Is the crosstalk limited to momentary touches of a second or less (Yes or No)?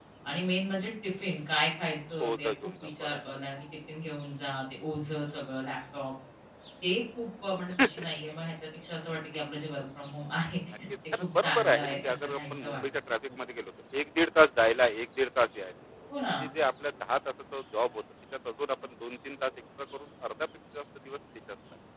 No